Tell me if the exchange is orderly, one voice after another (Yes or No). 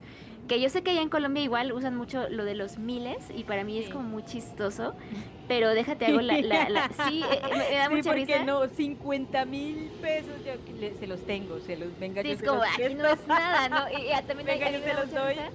No